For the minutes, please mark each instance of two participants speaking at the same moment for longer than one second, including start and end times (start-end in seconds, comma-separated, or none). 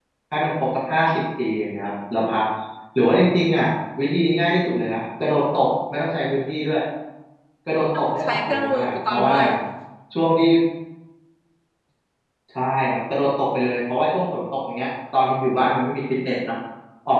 8.0-9.3